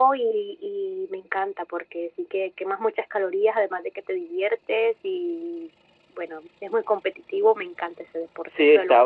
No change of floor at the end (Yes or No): No